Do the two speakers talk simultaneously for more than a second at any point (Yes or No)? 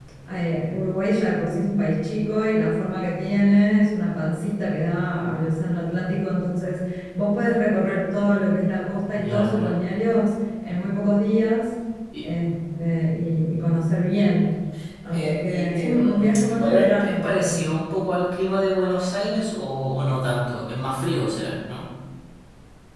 Yes